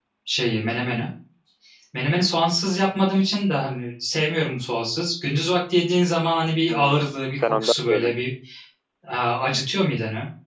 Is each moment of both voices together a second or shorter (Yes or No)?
No